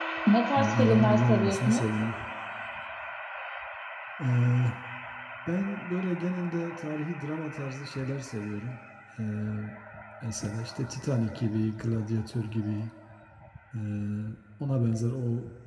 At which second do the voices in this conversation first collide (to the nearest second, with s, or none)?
1 s